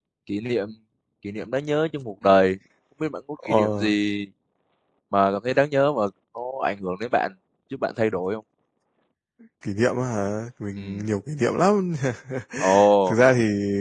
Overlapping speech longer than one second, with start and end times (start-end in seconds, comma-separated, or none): none